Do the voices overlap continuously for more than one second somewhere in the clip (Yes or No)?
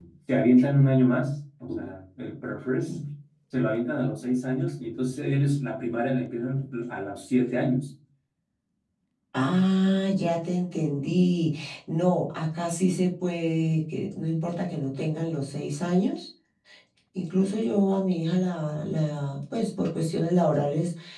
No